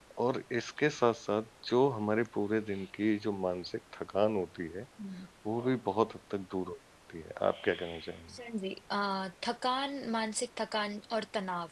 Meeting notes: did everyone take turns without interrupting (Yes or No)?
Yes